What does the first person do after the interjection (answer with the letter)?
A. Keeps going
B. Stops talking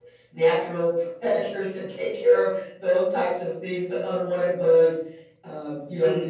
A